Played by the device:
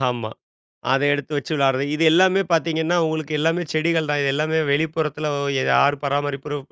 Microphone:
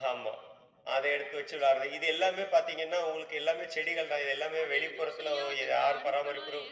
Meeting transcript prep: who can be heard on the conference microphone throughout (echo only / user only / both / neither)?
both